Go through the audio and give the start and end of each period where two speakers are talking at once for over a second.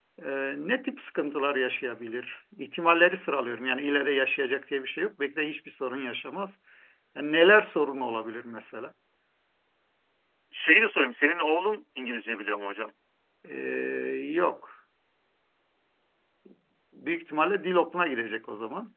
none

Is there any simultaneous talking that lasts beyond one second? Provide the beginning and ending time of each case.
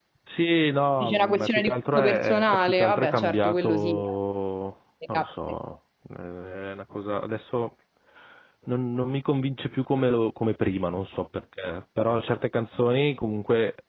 1.0-4.1

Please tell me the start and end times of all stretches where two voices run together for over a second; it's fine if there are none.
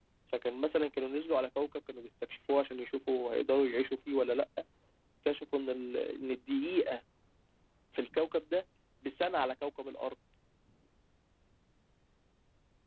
none

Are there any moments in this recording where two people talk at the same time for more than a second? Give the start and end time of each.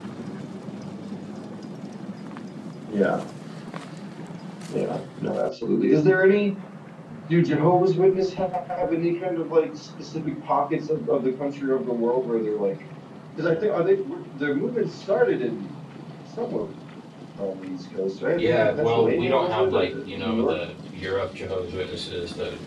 18.4-20.6

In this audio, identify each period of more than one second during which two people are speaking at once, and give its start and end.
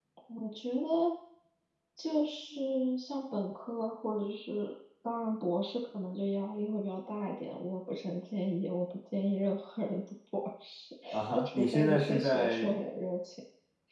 11.4-12.8

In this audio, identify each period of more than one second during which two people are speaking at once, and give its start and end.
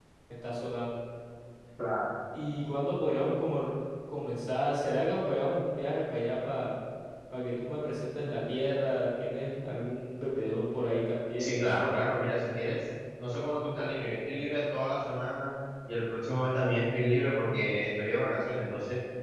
none

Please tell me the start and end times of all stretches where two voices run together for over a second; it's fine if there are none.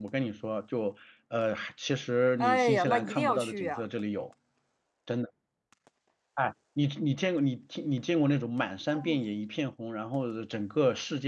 2.4-3.9

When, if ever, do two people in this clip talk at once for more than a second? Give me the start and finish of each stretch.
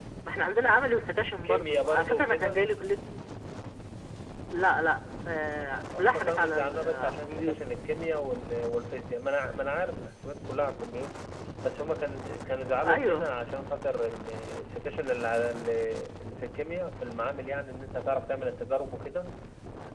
1.4-2.6, 6.0-7.5

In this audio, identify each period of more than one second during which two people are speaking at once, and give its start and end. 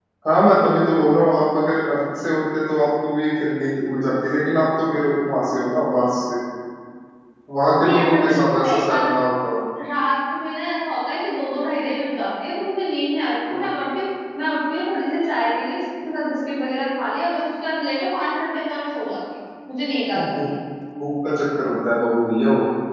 7.8-9.1

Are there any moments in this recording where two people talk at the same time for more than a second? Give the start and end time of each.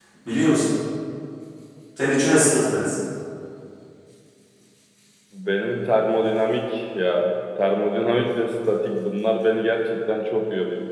none

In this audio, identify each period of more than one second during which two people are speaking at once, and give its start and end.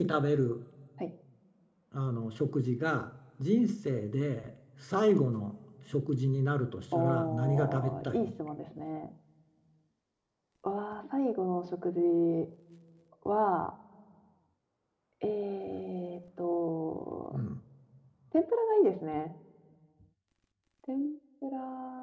6.9-8.2

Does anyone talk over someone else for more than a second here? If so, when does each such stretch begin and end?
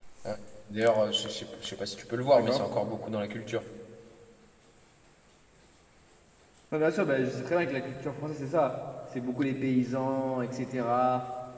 none

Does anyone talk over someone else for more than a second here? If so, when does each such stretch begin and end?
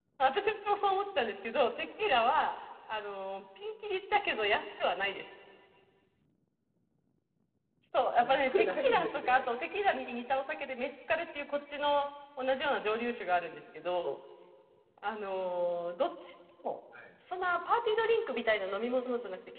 8.2-9.5

